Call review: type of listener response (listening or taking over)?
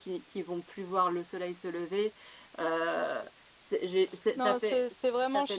taking over